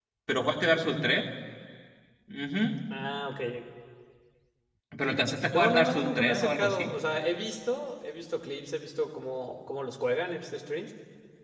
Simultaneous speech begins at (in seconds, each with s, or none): 5.5 s